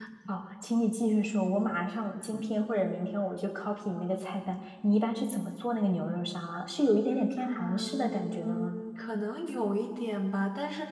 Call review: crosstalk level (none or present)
present